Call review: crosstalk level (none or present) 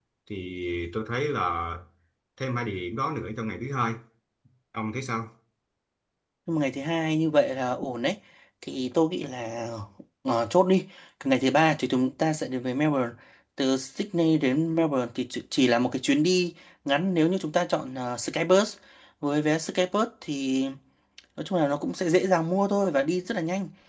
none